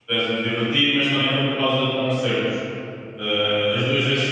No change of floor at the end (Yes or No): Yes